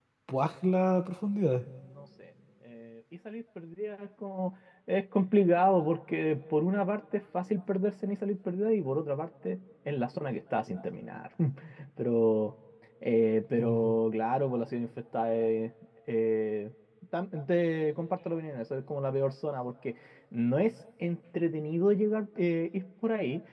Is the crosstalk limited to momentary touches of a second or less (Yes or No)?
Yes